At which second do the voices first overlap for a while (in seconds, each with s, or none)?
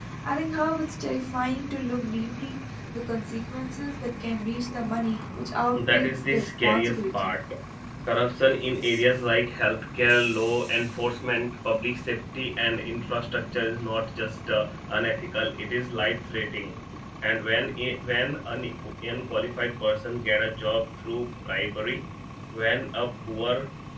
5.7 s